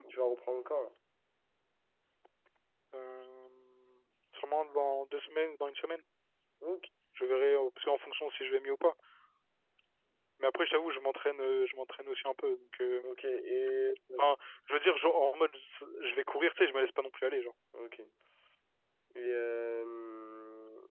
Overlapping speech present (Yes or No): No